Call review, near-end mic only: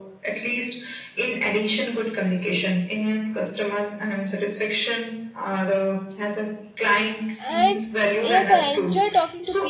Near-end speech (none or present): present